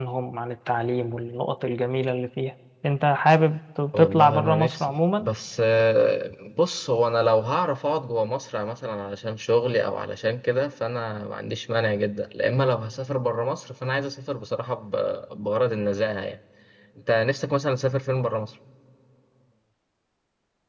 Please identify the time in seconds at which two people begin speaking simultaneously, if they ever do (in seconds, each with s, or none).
3.9 s